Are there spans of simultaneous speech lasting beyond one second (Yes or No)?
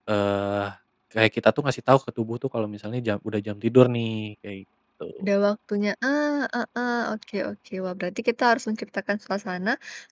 No